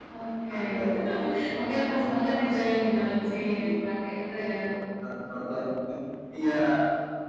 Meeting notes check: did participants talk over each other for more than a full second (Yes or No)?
Yes